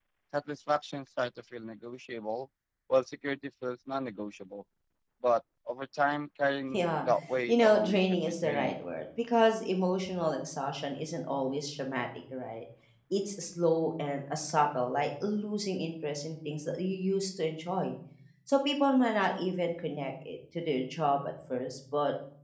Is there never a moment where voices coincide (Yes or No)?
No